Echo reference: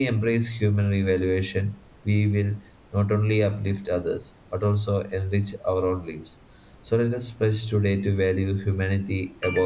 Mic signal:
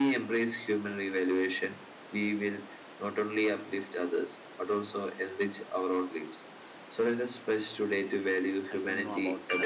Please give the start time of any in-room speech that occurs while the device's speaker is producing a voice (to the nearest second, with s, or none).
9 s